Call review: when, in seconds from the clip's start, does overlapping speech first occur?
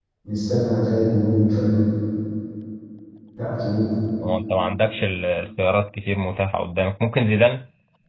none

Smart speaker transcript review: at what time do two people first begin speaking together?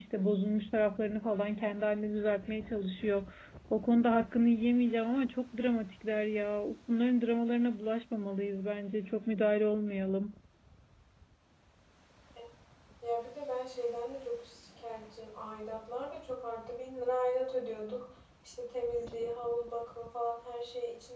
none

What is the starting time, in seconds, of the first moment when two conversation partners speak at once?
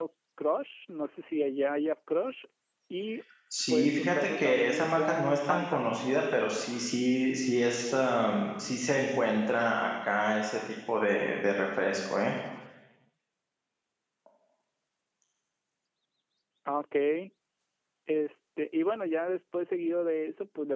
4 s

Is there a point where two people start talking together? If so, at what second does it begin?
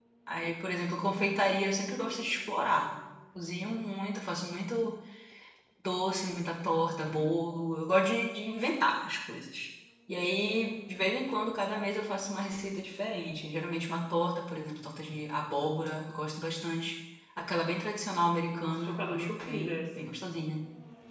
19 s

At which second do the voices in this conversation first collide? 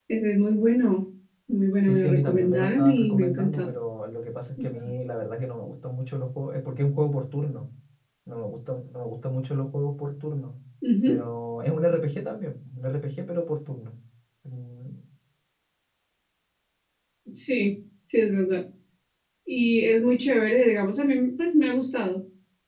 2 s

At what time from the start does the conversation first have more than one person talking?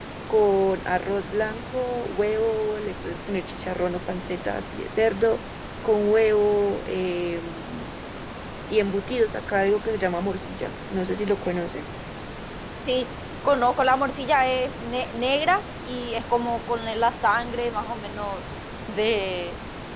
none

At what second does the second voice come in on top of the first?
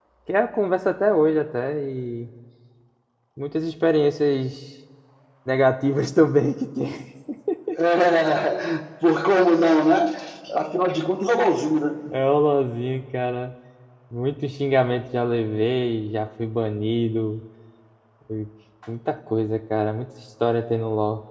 none

